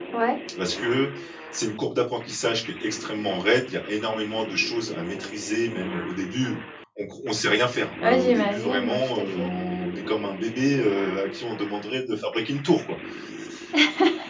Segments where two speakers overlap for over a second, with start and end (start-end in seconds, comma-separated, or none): 8.0-9.5